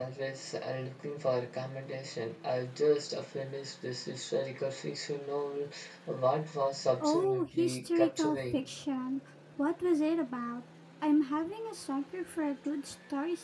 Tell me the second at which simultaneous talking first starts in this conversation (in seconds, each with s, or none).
7.0 s